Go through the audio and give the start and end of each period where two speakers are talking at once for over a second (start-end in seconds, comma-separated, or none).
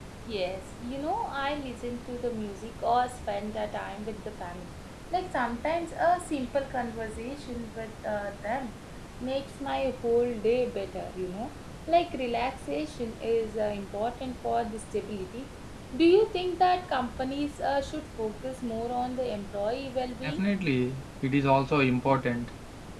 none